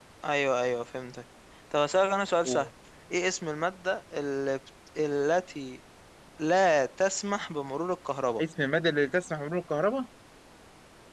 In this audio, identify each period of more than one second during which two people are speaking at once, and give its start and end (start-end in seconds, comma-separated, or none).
none